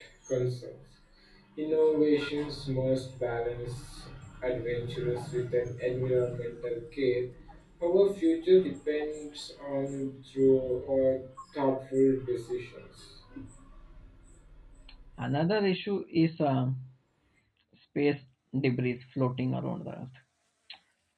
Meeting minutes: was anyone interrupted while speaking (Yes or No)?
No